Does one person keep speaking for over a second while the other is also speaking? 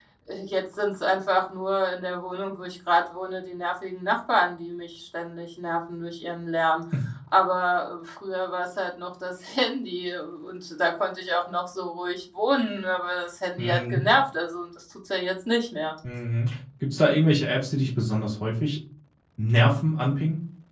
No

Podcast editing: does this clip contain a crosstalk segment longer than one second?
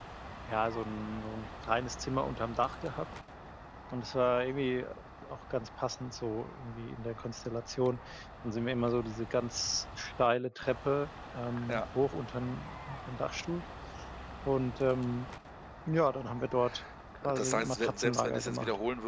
Yes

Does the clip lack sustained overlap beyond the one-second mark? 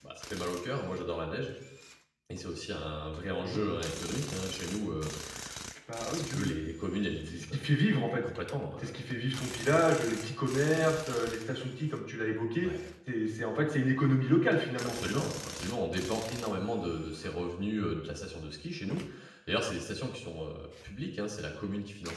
Yes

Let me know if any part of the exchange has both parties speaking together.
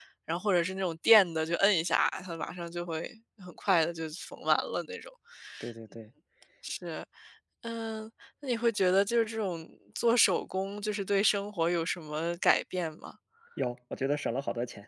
No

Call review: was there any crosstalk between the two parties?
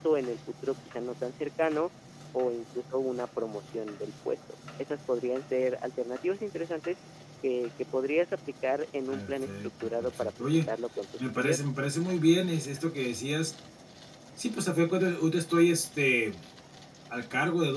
Yes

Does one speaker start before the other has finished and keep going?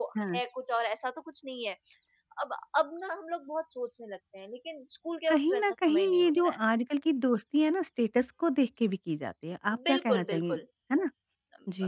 Yes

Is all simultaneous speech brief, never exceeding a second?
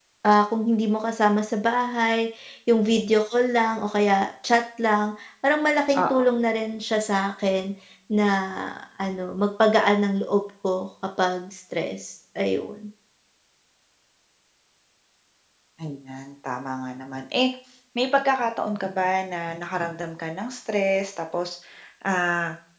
Yes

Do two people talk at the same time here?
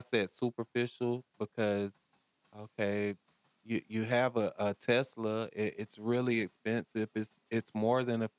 No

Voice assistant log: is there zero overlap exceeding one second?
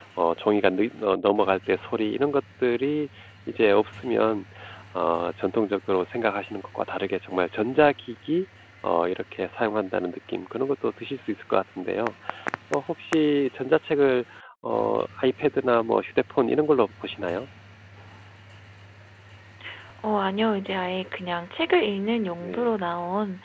Yes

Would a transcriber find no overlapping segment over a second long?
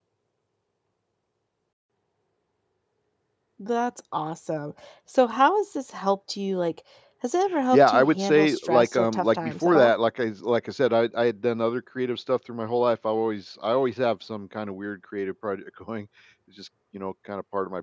No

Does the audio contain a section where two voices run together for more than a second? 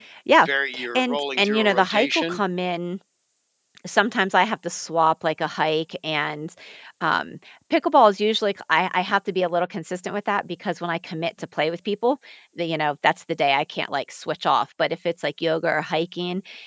Yes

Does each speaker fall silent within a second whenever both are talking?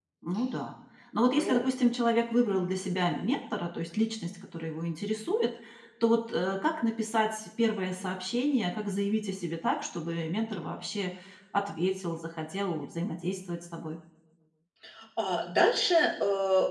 Yes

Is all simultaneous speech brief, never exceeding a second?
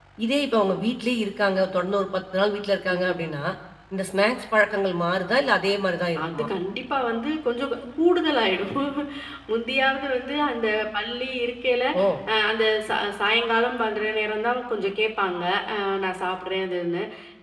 Yes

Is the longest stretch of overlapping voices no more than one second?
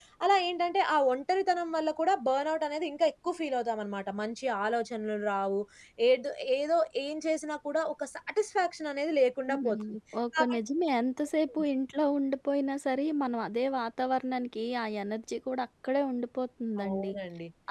Yes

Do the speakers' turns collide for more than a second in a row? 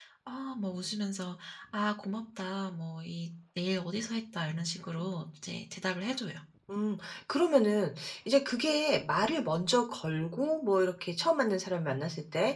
No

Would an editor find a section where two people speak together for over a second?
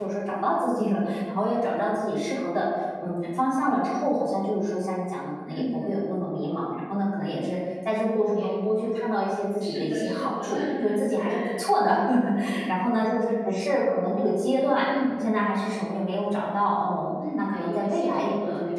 Yes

